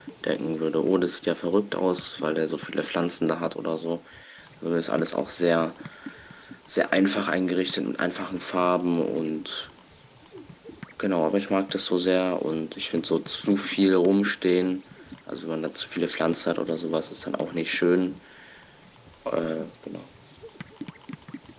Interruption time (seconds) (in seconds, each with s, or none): none